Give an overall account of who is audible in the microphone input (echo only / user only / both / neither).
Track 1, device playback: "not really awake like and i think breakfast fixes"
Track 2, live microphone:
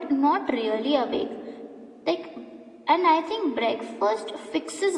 echo only